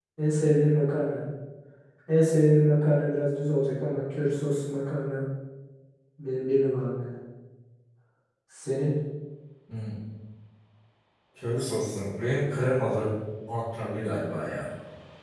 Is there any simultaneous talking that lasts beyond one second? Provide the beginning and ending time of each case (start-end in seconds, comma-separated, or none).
none